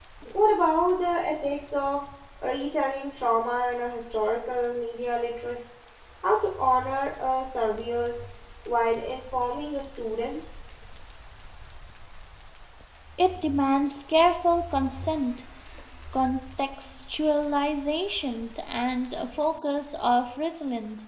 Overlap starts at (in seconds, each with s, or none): none